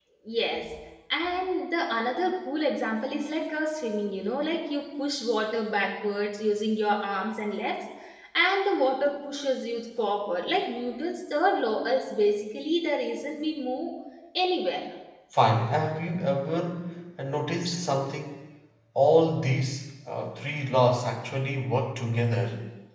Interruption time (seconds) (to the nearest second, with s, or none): none